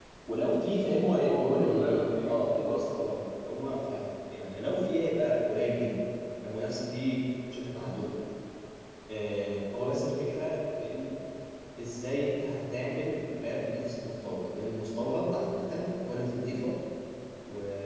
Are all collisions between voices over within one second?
No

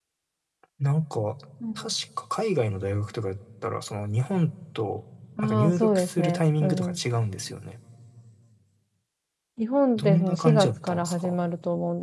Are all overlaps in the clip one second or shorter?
No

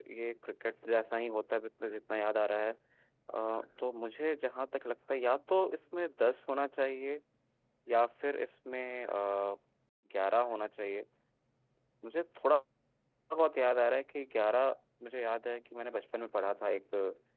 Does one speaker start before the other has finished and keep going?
No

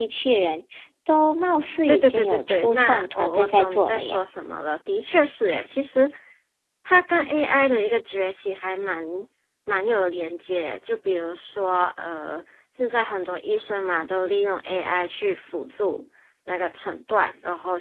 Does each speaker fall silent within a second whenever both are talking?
No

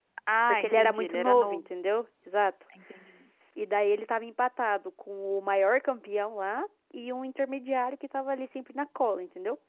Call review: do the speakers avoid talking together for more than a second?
No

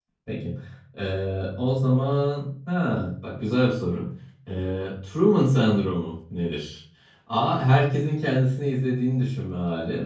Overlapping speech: No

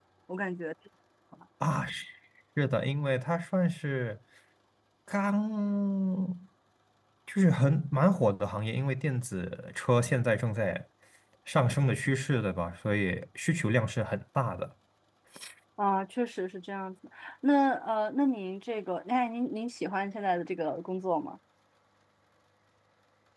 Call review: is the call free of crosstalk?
Yes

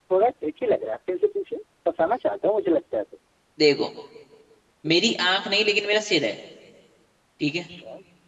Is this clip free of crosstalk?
Yes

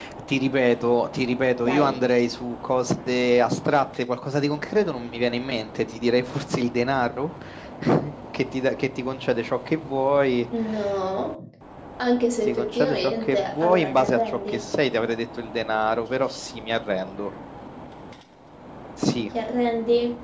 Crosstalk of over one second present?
Yes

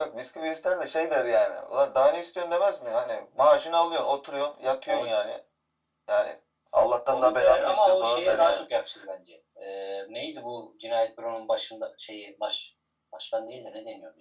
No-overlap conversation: No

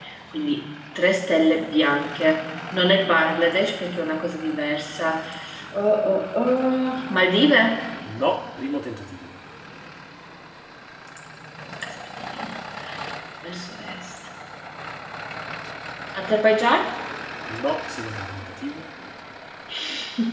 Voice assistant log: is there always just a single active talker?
Yes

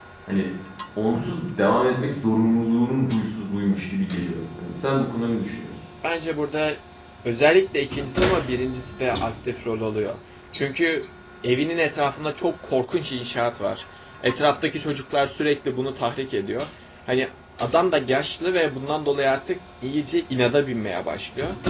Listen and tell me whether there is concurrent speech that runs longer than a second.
No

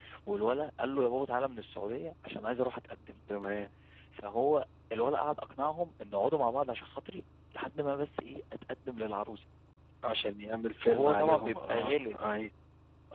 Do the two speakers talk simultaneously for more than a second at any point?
Yes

